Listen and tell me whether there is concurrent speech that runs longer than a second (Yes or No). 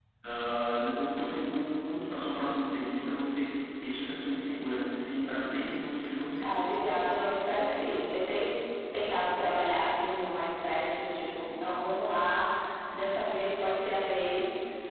No